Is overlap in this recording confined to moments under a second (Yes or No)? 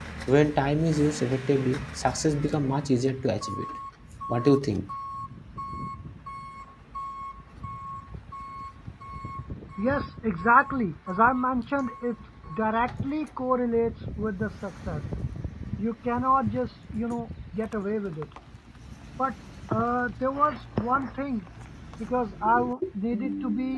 Yes